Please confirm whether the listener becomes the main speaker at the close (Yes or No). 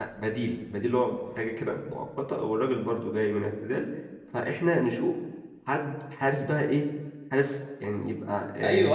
Yes